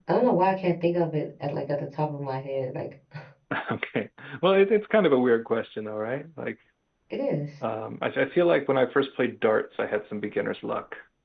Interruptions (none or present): none